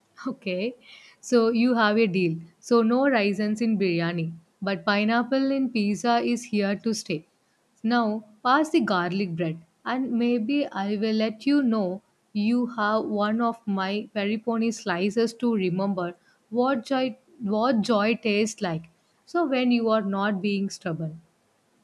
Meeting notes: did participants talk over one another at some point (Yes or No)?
No